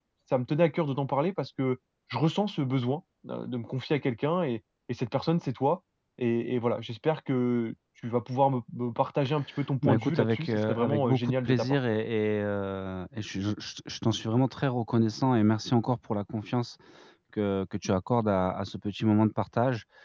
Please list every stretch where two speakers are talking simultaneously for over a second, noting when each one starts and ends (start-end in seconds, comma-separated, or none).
9.8-11.8